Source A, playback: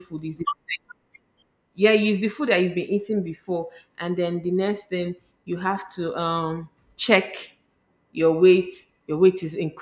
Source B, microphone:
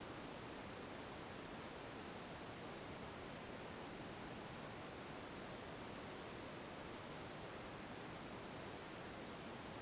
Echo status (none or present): none